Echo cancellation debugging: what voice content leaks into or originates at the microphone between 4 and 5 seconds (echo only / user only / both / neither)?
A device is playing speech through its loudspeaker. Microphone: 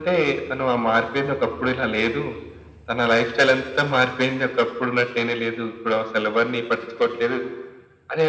echo only